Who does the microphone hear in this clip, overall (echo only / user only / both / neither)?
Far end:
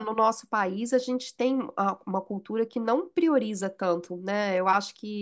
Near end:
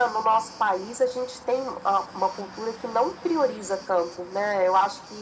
echo only